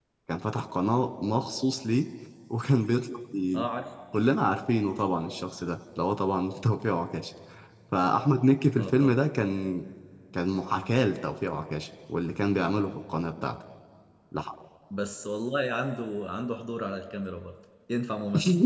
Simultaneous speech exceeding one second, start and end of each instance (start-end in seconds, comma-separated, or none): none